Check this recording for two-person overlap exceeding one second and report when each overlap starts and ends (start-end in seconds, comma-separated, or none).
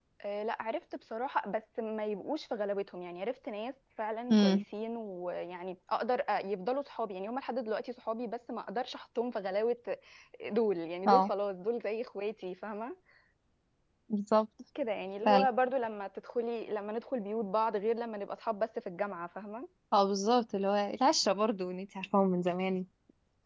none